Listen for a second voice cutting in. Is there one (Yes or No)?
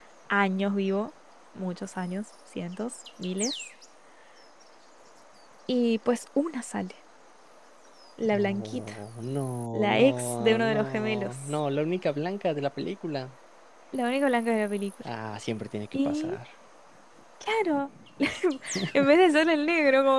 Yes